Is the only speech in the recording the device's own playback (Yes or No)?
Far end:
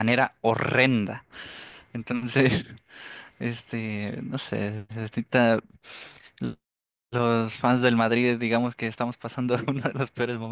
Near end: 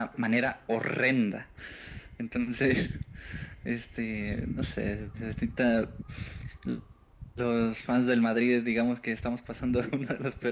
Yes